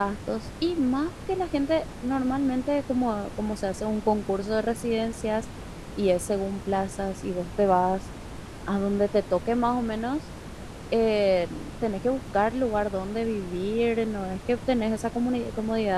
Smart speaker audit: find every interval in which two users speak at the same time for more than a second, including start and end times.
none

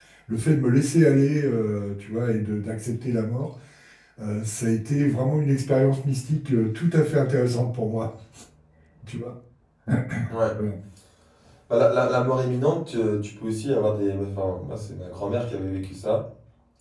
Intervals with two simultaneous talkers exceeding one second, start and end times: none

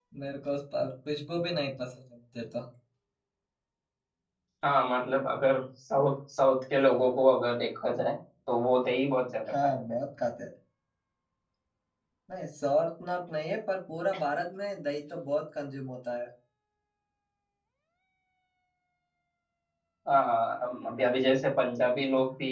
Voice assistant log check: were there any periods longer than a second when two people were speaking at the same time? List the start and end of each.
none

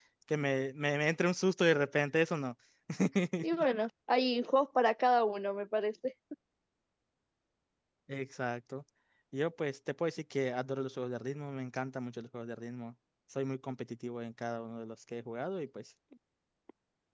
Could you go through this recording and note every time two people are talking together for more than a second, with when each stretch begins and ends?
none

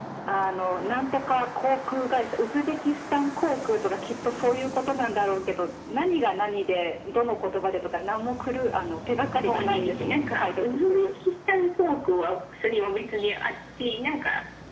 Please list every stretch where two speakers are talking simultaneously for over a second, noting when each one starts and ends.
9.4-11.1

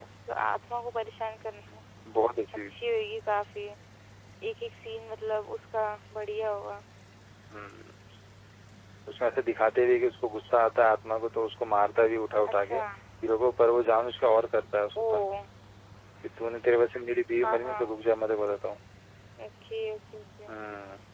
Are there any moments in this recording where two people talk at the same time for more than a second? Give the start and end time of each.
none

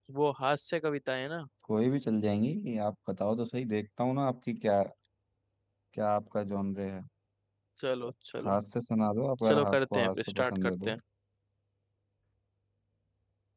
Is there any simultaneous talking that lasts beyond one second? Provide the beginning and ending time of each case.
9.4-10.9

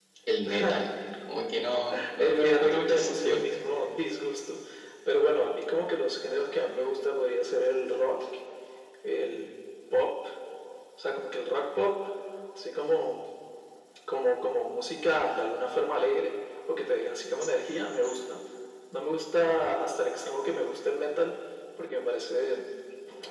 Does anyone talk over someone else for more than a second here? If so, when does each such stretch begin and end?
2.2-3.4

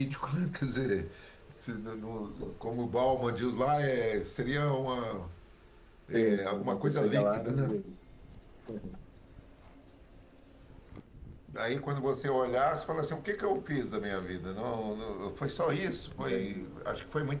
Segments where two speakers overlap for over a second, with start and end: 6.1-7.8

